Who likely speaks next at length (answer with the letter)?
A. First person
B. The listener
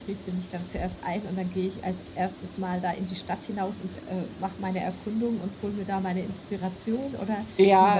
B